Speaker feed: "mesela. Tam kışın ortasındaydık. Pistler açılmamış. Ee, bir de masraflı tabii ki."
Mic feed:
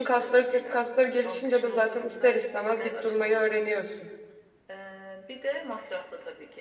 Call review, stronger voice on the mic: user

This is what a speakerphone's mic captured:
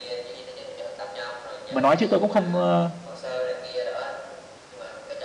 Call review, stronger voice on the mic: user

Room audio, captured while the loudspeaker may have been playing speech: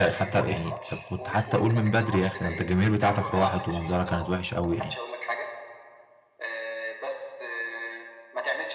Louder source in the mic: user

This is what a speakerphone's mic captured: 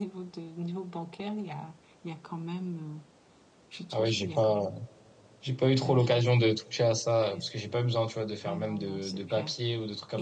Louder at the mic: user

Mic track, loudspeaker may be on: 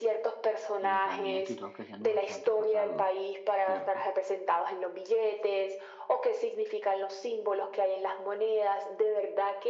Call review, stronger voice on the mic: echo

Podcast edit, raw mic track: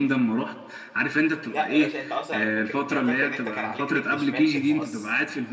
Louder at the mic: echo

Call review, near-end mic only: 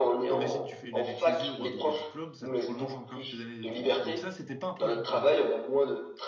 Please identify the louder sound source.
echo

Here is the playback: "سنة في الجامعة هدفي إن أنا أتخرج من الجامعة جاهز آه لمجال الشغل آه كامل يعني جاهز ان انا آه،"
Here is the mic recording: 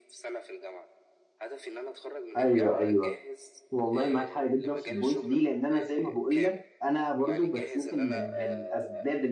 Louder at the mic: user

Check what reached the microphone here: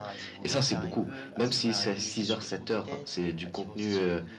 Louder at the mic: echo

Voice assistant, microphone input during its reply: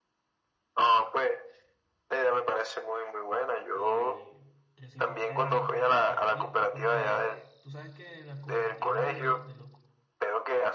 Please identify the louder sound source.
echo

